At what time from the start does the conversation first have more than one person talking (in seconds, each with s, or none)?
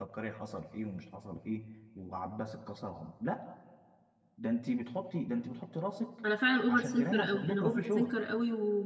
6.7 s